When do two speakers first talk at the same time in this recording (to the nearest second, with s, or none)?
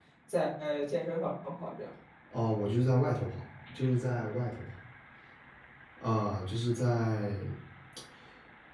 none